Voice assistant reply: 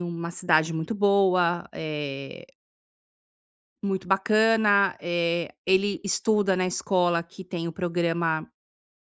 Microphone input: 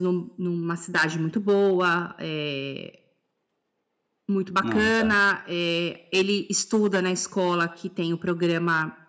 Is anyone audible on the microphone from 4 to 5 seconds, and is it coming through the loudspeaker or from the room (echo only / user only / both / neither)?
both